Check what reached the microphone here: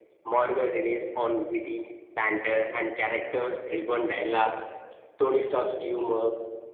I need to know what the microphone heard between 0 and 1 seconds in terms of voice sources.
echo only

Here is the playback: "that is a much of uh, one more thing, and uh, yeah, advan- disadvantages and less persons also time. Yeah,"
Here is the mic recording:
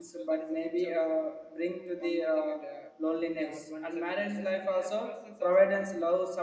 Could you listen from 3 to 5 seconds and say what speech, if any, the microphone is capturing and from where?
both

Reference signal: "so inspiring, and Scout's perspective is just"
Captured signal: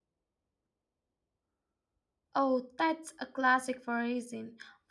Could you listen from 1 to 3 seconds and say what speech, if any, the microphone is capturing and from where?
user only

